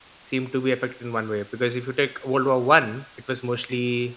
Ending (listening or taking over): listening